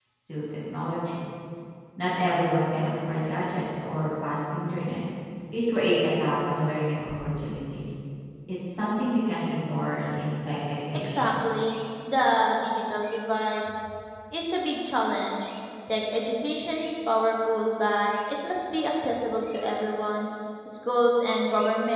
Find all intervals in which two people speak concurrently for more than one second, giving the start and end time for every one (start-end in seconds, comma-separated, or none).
none